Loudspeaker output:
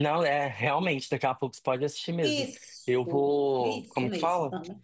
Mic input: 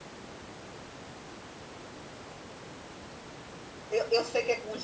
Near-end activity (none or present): present